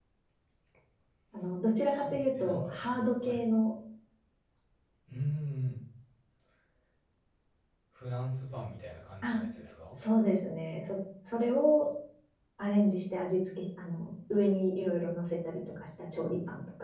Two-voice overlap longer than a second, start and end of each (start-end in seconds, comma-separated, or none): 1.8-3.4